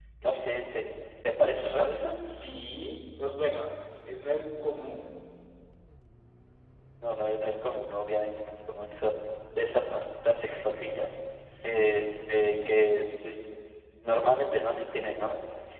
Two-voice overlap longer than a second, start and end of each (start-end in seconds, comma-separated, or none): none